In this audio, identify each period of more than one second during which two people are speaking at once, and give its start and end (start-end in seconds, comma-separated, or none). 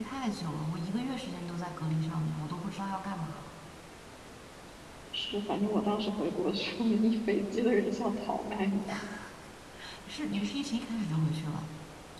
none